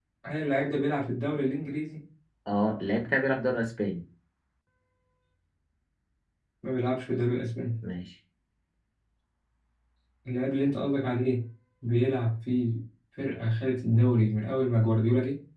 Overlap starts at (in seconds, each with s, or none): none